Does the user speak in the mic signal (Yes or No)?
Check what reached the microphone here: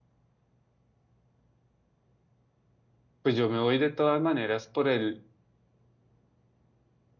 Yes